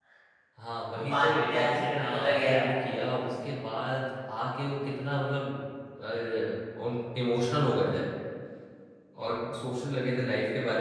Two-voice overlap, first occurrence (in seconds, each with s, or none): 1.1 s